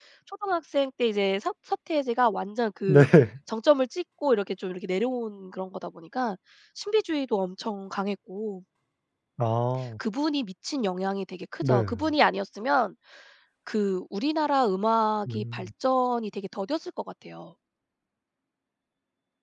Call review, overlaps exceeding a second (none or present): none